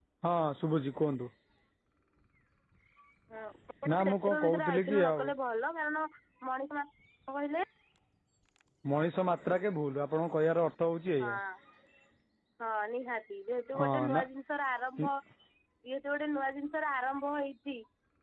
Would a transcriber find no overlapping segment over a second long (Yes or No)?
No